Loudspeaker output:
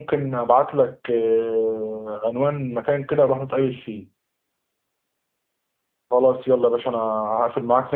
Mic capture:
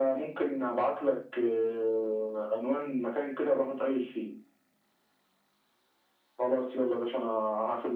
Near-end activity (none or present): none